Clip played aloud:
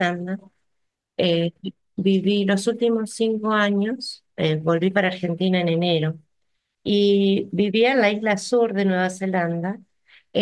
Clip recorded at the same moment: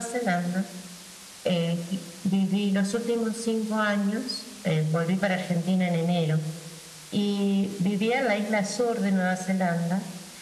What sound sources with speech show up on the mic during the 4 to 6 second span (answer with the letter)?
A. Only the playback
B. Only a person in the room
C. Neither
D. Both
A